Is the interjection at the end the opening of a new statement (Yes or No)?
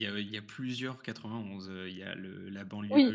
No